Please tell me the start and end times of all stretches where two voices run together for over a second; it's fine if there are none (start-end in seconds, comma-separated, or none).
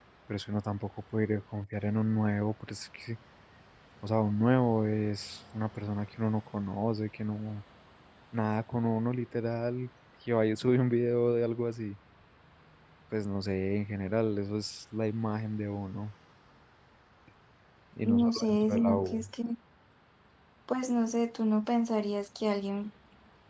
18.1-19.2